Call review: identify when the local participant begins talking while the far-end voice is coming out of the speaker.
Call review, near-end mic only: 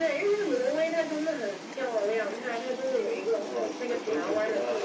none

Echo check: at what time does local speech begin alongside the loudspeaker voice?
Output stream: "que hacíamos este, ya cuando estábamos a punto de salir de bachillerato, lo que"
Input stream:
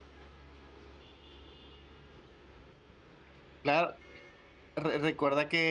3.6 s

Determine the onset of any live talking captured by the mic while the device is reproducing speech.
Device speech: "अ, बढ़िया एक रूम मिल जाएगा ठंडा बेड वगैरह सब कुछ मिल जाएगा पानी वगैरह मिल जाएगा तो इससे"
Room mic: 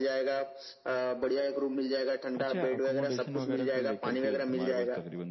2.4 s

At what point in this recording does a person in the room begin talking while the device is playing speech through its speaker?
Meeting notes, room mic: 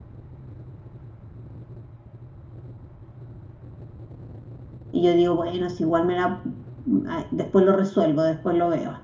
4.9 s

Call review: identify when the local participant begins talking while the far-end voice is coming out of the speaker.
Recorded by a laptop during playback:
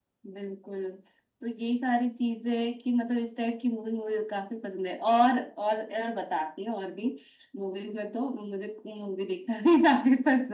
none

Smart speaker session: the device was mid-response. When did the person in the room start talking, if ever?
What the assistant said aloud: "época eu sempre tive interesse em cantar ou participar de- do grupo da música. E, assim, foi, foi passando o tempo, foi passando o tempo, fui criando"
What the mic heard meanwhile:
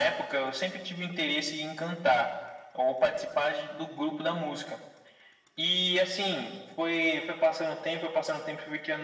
none

